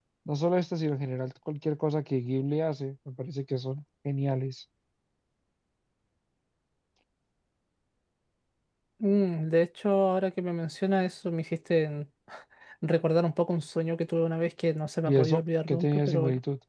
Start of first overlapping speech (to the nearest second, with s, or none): 15 s